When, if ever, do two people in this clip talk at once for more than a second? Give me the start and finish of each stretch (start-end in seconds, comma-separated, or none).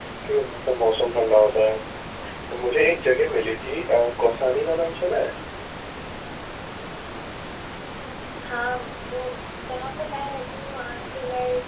none